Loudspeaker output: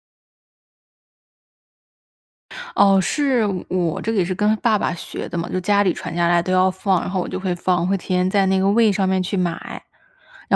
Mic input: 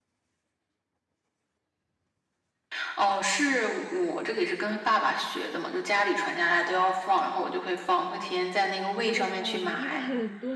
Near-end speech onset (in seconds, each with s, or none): 9.0 s